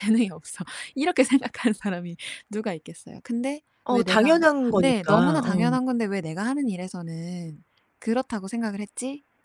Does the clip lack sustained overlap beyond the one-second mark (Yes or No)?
No